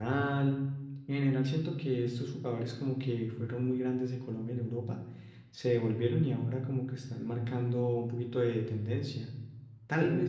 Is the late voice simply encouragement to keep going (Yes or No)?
Yes